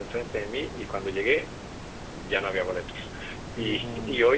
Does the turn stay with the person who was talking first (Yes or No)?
Yes